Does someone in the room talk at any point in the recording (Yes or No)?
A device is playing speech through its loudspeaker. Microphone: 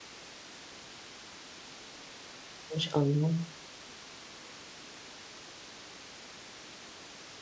Yes